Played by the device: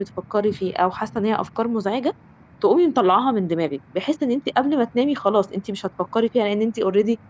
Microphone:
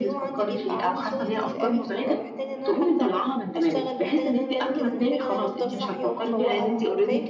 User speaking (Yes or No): Yes